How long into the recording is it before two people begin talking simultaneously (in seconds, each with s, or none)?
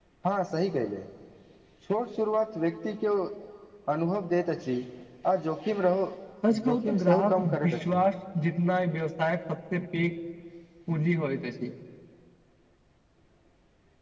6.7 s